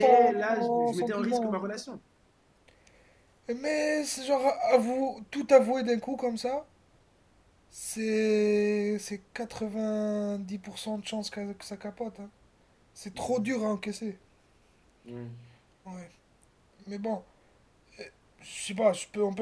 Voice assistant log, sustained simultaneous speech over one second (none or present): present